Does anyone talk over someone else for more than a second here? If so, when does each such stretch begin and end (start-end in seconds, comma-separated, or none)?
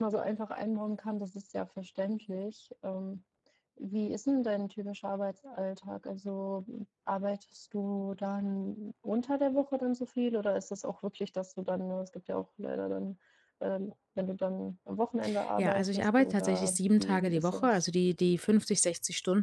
15.6-17.8